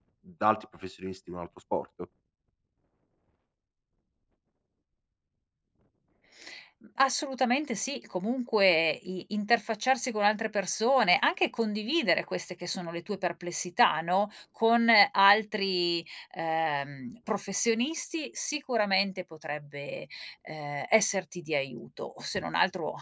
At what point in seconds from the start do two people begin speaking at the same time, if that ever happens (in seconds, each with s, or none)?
none